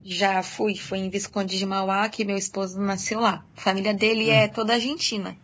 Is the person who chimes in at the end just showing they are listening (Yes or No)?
Yes